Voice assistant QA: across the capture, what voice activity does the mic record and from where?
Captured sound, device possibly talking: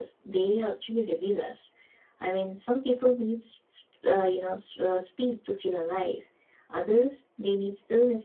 echo only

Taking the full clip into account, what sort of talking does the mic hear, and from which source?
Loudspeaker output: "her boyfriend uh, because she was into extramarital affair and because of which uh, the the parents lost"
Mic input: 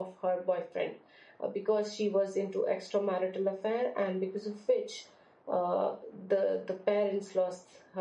echo only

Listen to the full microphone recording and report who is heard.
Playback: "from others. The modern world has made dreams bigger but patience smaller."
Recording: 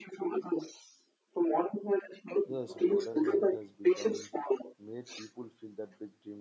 both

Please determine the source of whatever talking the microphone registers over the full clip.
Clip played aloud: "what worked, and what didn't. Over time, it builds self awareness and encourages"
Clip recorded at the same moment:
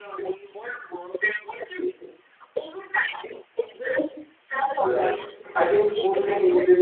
both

